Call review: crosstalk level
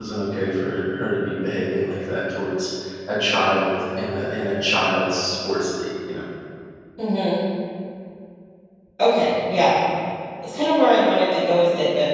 none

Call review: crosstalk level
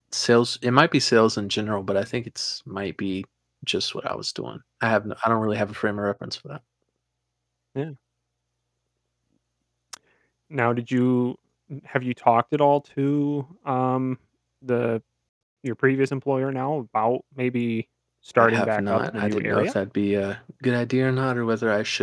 present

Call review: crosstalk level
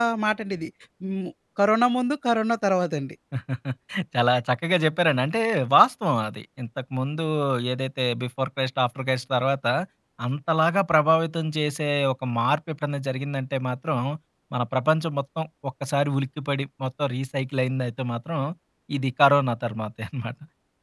none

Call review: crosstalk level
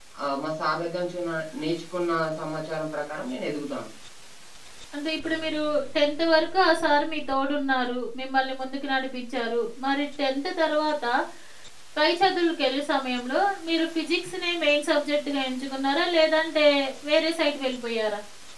none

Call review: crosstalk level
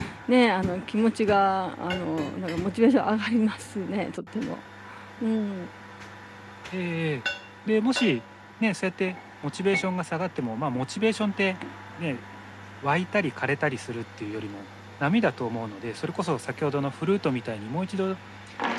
none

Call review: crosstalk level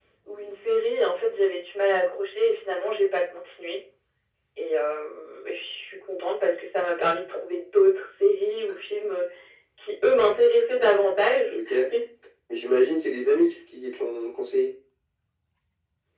none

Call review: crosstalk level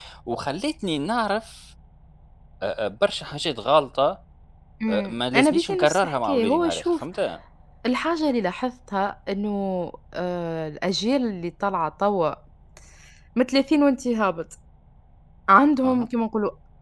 present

